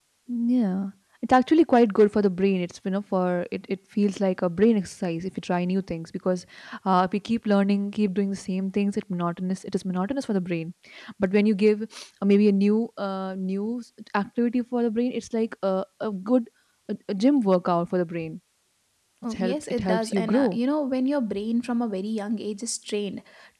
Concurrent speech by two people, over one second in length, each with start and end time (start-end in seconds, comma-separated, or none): 19.2-20.6